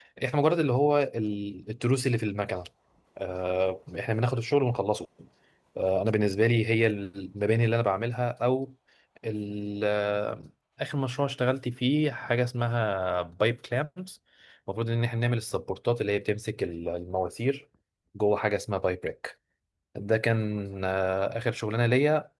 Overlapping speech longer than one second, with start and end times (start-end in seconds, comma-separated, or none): none